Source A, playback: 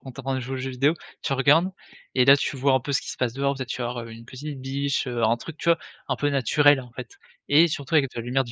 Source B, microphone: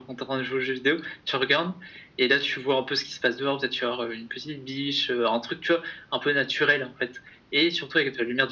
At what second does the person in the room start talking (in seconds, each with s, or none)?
none